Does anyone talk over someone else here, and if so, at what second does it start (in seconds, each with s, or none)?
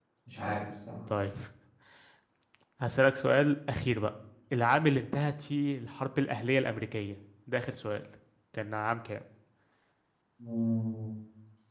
none